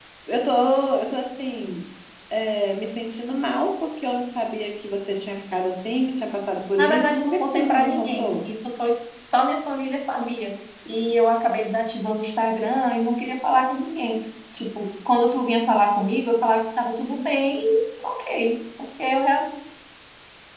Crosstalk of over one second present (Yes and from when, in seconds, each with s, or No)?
Yes, from 6.8 s